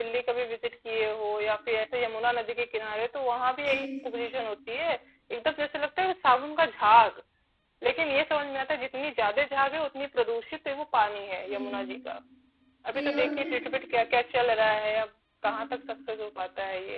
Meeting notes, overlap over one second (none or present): none